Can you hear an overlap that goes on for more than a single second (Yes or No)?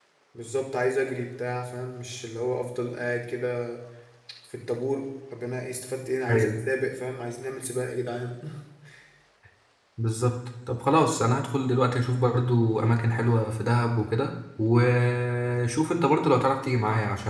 No